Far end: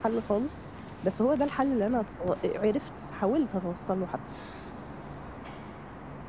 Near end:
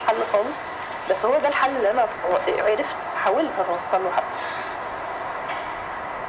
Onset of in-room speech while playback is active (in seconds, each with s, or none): none